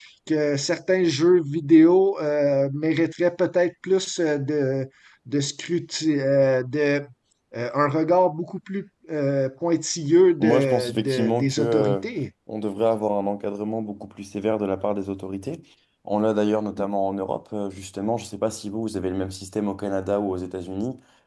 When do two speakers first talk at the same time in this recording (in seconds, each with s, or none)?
10.4 s